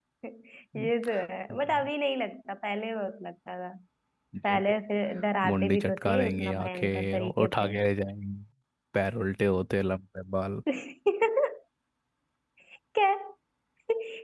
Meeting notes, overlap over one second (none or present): present